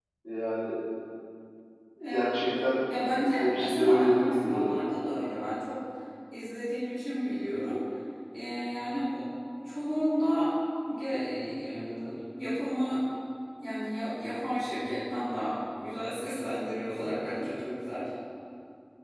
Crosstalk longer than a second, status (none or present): present